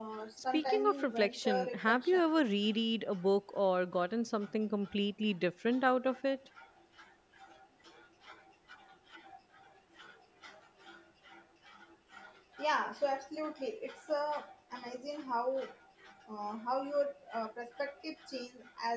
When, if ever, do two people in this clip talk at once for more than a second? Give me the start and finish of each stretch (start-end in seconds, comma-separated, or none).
0.5-2.2